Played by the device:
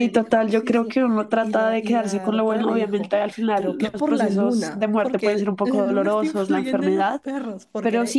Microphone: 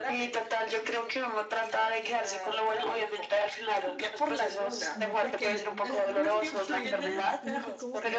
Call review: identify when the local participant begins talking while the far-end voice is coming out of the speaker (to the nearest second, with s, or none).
5 s